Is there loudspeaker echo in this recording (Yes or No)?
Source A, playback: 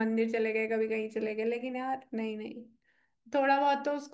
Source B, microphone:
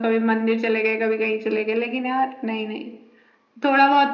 Yes